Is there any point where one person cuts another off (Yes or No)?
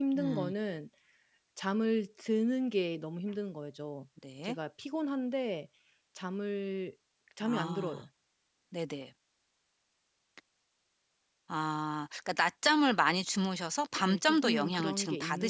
Yes